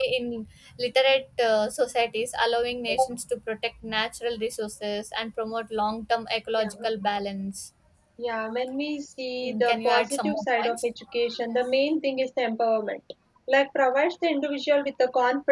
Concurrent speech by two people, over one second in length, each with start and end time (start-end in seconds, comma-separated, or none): 9.4-10.8